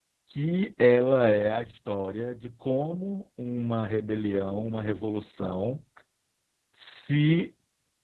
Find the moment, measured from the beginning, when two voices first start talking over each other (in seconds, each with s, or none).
none